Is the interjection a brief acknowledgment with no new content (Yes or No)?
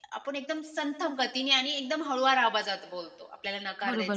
No